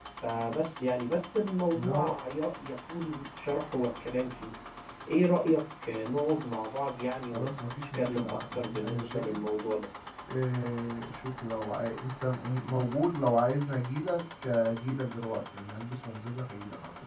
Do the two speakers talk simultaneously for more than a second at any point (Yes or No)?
Yes